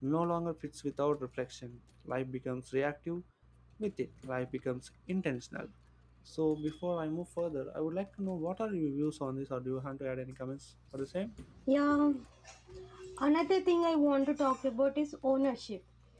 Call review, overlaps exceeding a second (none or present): none